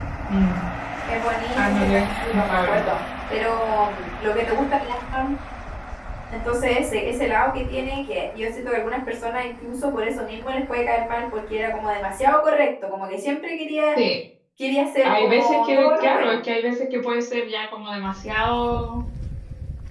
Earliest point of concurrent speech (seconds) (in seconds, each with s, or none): 1.6 s